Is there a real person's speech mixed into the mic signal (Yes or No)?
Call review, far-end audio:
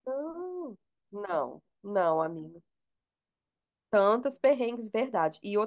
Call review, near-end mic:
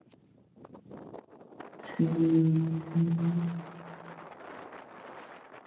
Yes